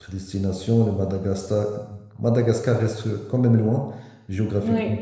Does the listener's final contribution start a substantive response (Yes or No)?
No